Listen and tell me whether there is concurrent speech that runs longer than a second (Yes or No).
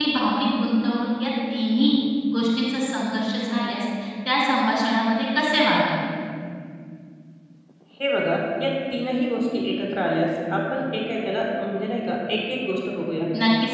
No